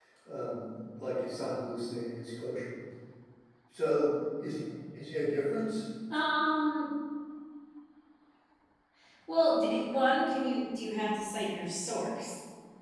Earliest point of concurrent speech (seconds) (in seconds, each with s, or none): none